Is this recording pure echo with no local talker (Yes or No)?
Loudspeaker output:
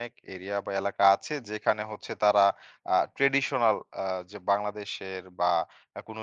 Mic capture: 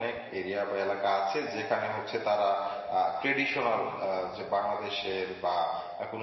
Yes